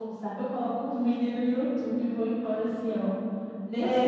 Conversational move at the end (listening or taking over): taking over